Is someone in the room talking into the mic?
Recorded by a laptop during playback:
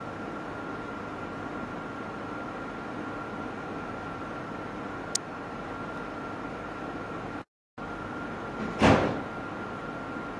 No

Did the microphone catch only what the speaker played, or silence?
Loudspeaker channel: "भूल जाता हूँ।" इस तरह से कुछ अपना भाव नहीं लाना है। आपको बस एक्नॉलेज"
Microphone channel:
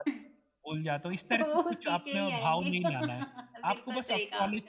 No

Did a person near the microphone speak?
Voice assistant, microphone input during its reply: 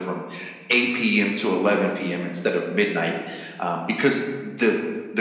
No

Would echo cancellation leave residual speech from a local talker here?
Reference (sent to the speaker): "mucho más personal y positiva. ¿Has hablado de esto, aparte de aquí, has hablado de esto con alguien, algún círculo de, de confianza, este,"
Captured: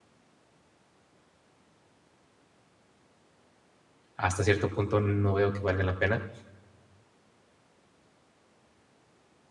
Yes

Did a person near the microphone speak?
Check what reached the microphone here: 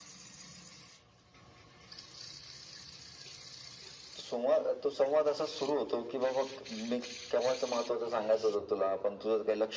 No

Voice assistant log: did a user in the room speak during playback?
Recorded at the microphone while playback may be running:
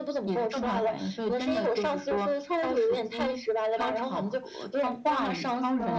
No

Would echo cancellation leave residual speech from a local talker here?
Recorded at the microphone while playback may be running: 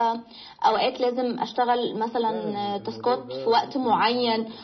Yes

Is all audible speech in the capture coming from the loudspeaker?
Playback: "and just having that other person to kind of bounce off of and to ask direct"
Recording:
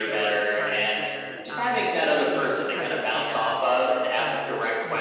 No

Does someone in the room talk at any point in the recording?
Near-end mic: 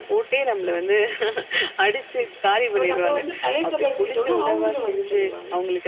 Yes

